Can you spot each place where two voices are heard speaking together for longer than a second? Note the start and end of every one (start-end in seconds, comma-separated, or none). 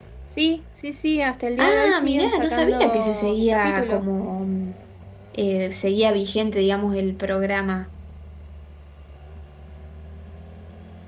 1.6-4.0